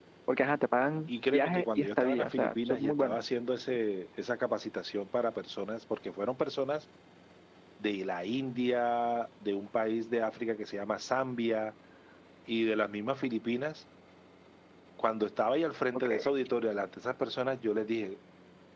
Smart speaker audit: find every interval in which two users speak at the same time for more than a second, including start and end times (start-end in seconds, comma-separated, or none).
1.1-3.2